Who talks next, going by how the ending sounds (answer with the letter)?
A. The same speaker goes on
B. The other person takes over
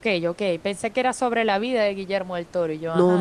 B